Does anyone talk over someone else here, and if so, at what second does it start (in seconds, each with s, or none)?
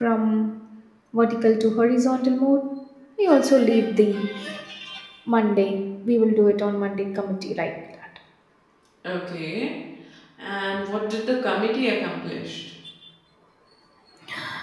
none